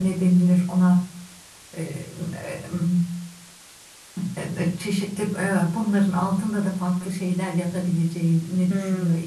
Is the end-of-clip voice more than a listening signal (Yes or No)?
Yes